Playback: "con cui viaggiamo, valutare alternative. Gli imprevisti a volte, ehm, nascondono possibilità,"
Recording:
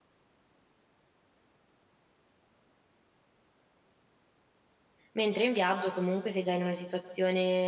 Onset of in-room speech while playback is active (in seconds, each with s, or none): 5.1 s